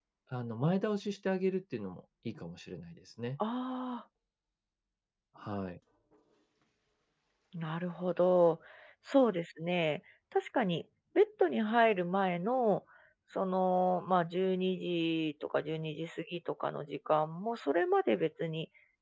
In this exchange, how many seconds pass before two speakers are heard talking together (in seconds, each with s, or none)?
none